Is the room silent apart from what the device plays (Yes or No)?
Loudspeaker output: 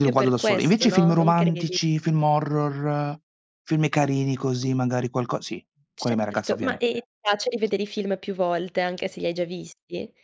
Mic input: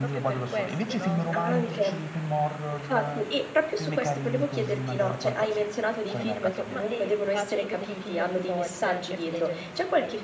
No